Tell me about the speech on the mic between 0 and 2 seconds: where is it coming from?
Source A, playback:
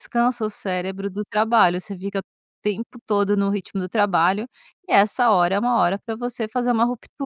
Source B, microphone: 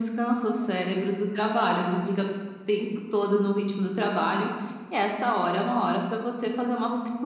echo only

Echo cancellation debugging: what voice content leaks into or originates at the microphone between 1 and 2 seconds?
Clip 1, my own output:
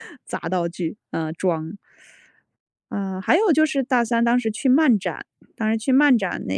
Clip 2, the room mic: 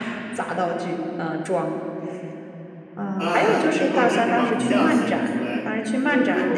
echo only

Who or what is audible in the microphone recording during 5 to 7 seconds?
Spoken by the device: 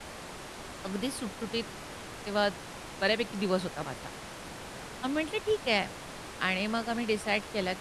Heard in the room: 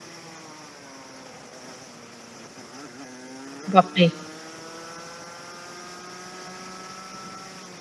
neither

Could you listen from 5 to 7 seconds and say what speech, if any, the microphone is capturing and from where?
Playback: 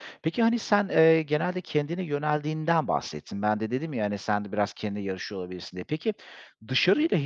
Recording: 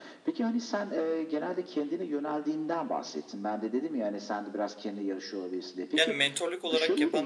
both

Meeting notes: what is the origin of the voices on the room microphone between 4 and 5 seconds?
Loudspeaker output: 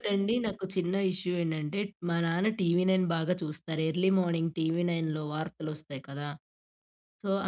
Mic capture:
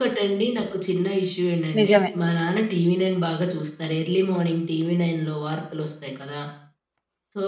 echo only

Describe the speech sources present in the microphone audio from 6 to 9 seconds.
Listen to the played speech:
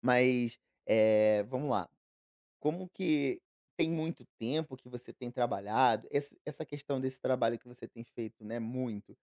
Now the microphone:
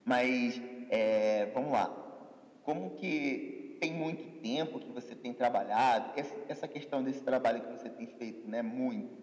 echo only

